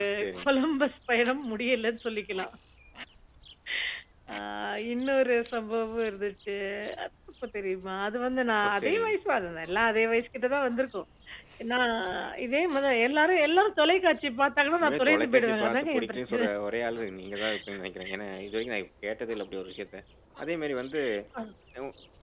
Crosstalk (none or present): present